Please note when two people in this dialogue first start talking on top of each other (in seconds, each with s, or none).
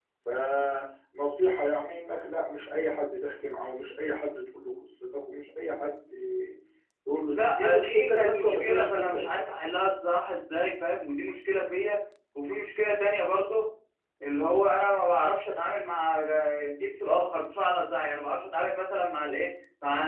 7.3 s